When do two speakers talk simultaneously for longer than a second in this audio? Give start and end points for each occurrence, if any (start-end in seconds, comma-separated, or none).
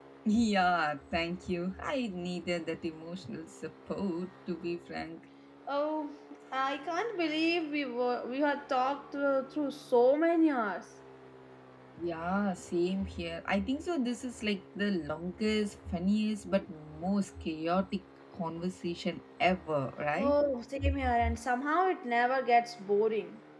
none